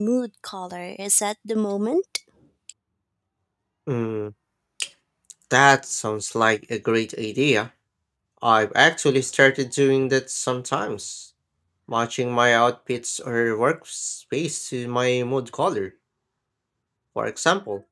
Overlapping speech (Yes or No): No